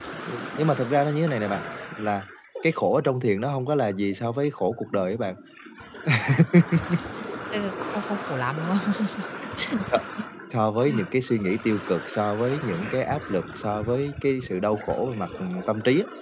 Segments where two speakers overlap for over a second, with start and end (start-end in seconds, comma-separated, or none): none